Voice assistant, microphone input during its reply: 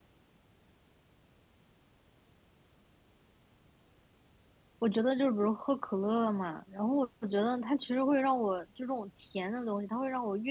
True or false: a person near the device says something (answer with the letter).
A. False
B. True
B